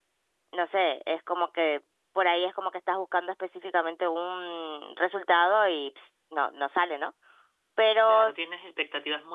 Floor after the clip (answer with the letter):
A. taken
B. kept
A